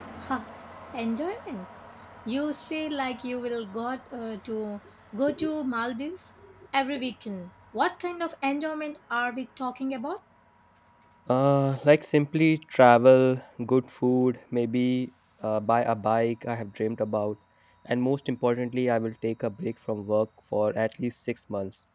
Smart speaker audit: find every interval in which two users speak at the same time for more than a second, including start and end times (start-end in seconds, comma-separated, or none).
none